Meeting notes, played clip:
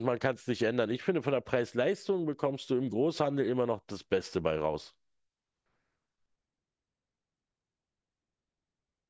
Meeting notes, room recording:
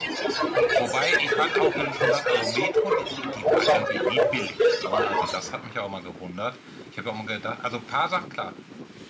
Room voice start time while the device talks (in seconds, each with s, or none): 0.8 s